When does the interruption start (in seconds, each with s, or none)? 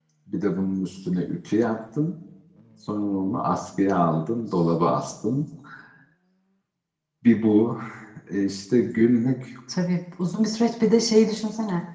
none